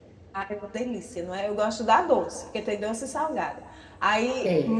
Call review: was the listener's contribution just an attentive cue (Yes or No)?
Yes